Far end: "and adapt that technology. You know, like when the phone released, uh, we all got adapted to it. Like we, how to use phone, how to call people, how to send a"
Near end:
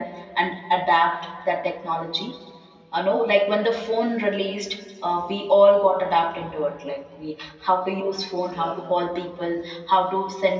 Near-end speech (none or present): present